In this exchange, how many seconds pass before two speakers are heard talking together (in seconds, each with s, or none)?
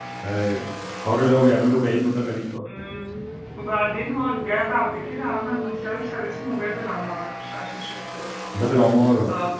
none